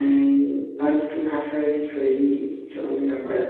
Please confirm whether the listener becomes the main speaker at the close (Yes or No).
Yes